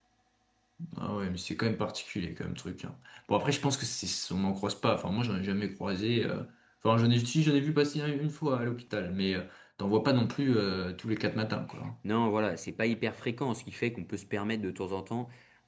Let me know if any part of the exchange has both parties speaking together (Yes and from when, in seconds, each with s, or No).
No